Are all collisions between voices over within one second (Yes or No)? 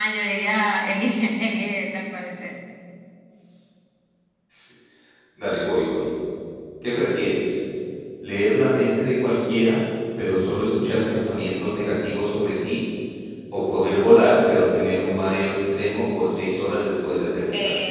Yes